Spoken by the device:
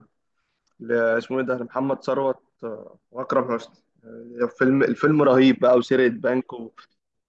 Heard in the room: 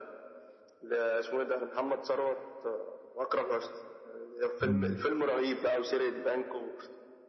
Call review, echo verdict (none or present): present